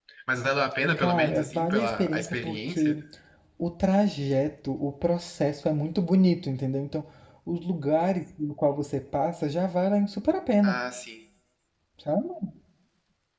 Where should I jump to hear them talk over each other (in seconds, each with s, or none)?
1.0 s